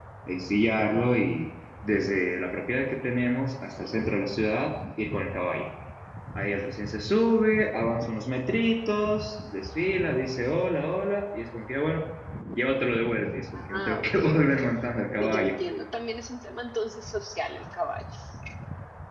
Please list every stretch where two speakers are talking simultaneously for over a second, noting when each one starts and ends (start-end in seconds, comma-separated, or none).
13.5-15.6